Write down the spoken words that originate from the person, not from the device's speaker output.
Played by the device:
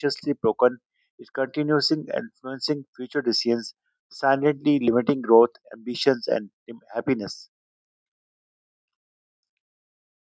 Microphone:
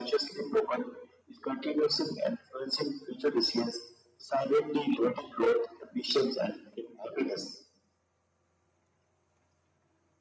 none

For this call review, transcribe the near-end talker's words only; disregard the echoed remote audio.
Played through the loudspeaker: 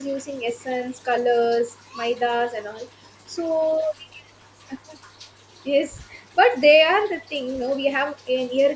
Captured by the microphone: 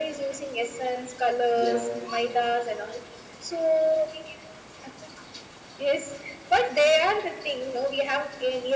yeah,

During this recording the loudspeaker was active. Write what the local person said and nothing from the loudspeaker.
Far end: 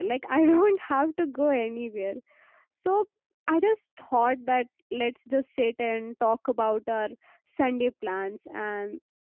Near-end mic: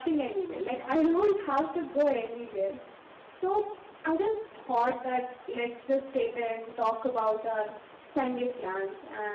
none

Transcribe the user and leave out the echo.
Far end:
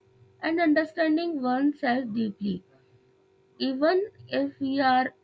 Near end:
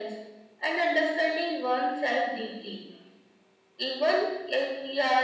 none

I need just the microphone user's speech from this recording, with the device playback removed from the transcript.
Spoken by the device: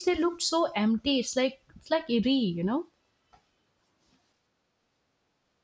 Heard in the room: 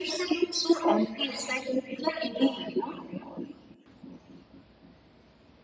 none

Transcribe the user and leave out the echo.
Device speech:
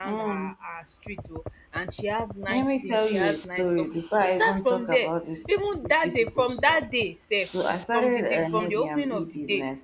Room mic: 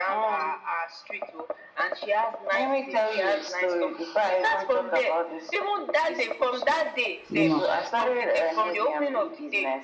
you know,

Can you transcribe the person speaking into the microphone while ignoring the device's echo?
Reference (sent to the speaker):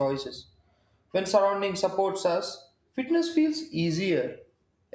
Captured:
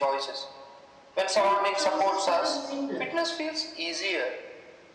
then choices become simpler.

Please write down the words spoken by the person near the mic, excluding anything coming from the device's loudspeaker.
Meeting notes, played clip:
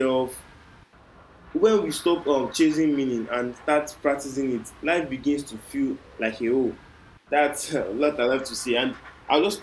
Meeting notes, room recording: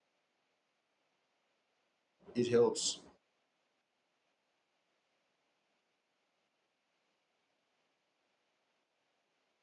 it helps.

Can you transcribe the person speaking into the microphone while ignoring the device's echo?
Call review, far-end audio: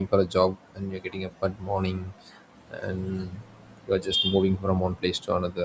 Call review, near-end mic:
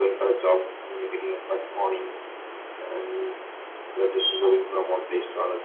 none

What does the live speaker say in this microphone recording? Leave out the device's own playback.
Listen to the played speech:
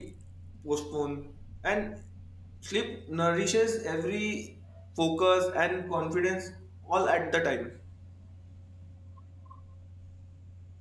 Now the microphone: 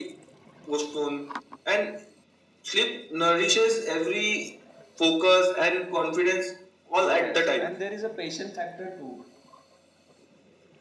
Yes, and there is a patient factor too.

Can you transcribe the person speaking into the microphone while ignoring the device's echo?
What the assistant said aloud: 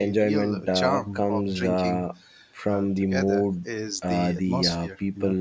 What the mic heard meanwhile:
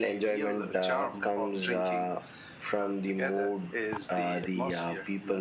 none

